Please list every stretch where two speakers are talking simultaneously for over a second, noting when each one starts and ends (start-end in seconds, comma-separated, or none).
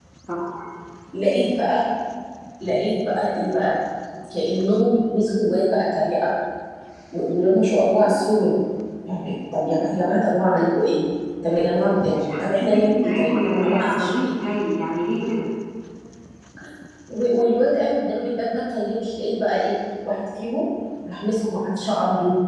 12.2-14.1